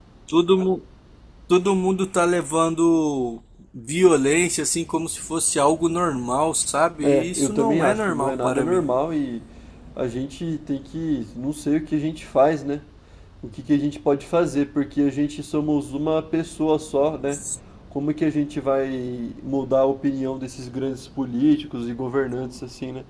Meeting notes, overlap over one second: present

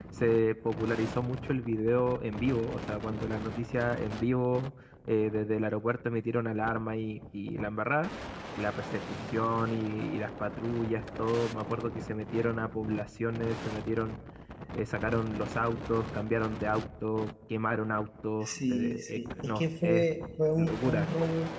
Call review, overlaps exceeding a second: present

